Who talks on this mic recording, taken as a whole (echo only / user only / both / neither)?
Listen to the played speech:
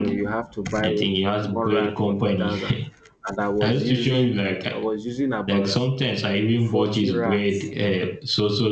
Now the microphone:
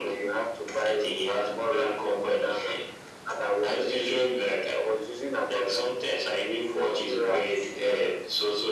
echo only